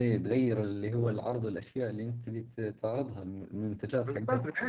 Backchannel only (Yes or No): No